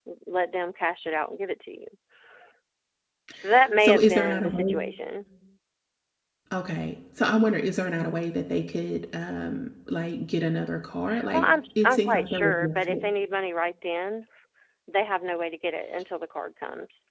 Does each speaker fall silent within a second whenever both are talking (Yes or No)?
No